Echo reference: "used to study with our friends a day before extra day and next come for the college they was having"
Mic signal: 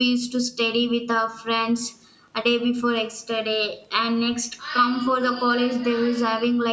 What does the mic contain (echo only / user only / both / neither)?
both